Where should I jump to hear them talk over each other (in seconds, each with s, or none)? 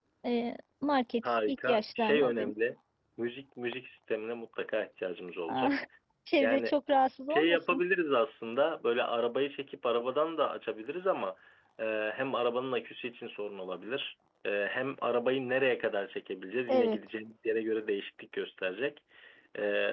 1.2 s